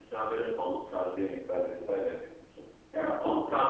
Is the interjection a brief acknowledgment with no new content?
No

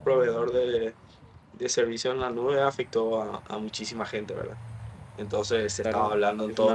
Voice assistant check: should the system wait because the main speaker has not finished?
No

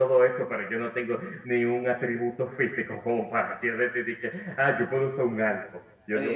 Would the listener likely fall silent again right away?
No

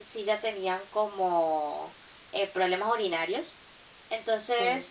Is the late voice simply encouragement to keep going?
Yes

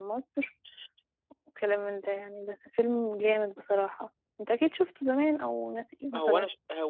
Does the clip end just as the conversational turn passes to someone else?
Yes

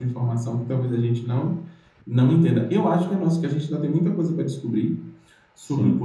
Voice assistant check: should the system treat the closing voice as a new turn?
No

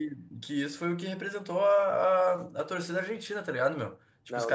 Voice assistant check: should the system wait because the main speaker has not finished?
Yes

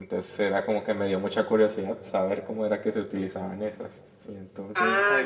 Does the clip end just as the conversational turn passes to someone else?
Yes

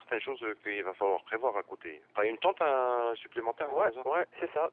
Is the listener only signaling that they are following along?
No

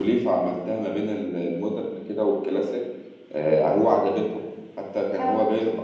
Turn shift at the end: No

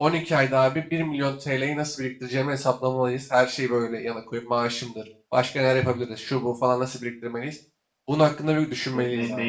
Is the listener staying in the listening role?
No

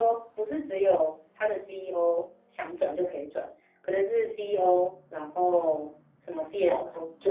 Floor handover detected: Yes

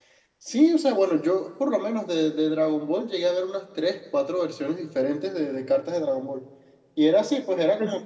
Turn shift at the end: No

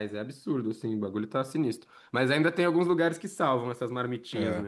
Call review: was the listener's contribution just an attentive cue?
No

